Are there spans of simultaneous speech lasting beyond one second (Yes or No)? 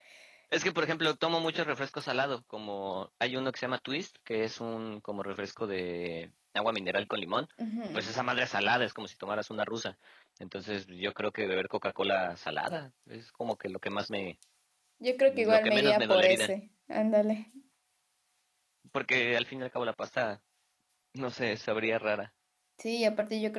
Yes